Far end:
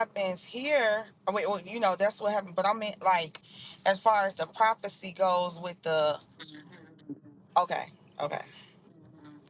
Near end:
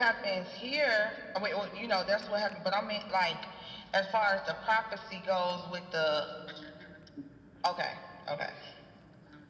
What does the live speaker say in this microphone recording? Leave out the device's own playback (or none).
none